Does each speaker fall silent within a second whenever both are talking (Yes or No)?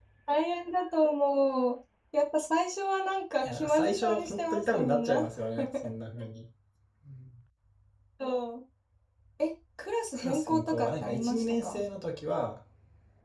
No